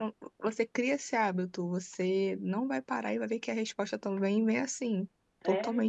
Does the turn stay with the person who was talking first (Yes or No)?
Yes